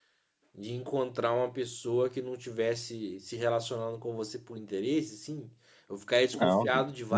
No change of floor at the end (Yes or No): No